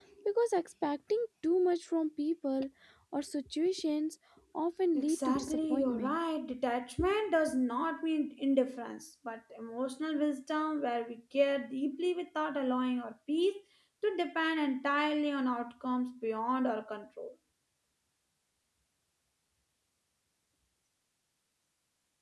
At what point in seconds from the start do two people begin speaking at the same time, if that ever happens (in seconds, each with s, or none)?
5.0 s